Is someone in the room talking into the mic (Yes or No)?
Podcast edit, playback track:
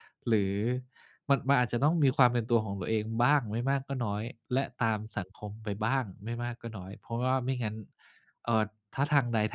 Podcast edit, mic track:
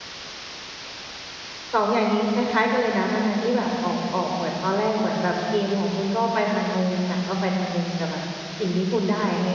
Yes